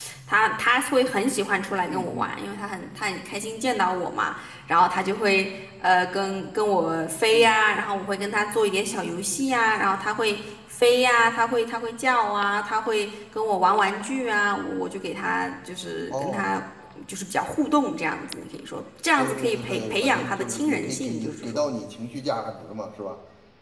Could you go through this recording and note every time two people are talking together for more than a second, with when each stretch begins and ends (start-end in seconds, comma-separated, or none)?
19.2-21.6